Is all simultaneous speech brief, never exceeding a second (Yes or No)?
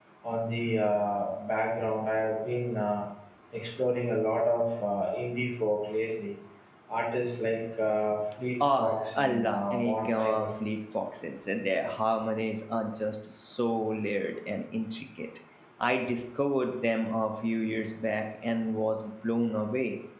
No